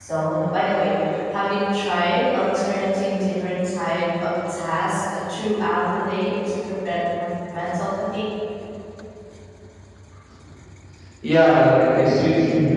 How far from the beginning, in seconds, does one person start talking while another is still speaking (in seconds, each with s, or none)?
none